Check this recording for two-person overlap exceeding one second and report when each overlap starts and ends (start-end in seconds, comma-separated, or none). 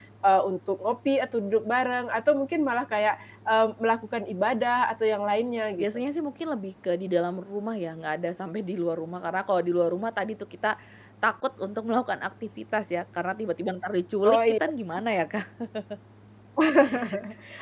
none